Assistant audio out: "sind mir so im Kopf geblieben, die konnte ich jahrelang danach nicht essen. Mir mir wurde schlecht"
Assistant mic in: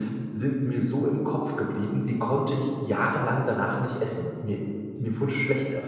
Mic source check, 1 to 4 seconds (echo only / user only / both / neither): echo only